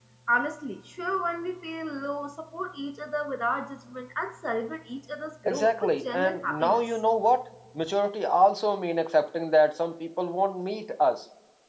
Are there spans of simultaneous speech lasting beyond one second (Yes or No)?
Yes